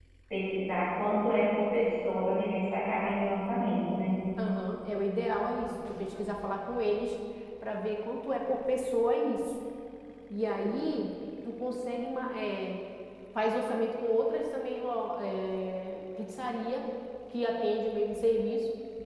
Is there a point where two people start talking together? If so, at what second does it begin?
none

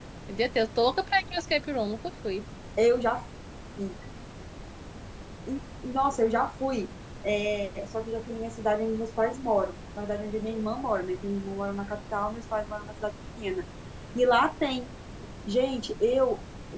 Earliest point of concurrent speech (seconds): none

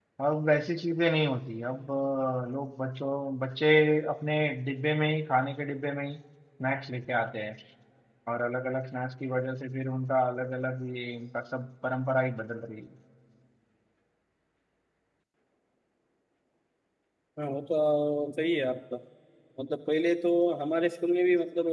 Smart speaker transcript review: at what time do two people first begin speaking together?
none

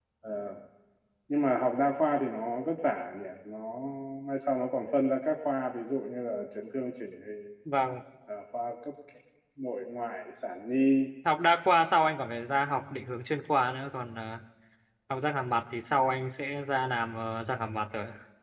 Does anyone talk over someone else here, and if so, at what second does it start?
none

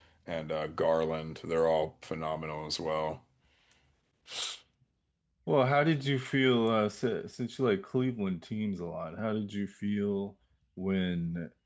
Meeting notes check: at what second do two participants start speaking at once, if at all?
none

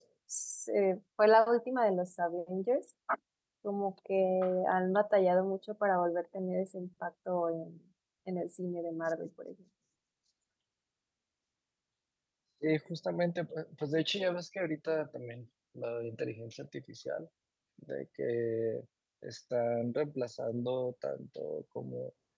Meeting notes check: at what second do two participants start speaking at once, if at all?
none

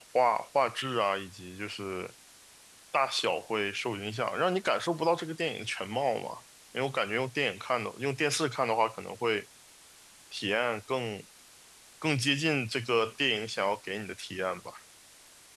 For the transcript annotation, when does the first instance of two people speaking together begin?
none

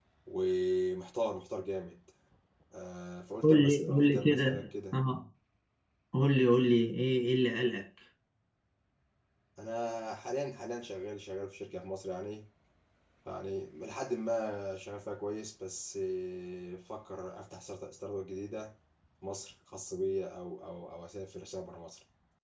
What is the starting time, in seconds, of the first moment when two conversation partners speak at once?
3 s

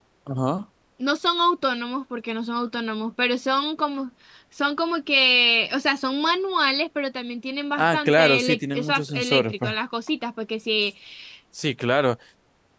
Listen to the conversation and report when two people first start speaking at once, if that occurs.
8 s

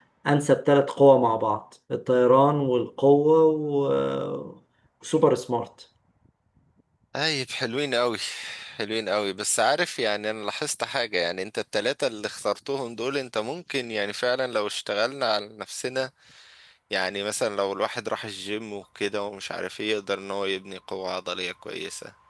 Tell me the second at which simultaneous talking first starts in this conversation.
none

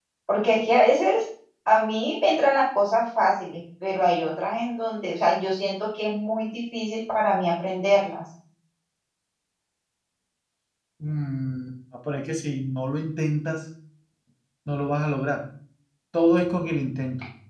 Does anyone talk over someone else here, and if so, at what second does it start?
none

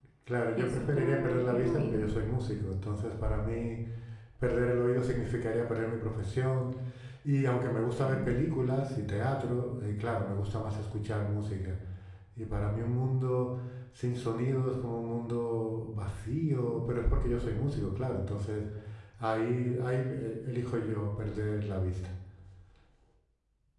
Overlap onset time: 1 s

